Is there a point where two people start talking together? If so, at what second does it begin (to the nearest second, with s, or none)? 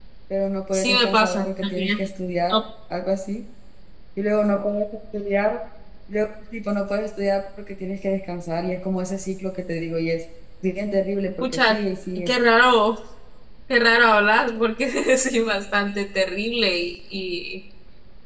1 s